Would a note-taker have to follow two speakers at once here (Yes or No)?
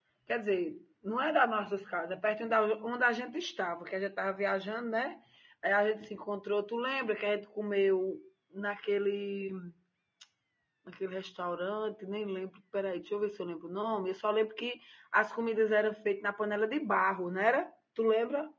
No